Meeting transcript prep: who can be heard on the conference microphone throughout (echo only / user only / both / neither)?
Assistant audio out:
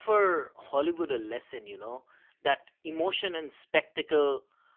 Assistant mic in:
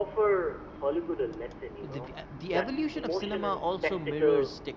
both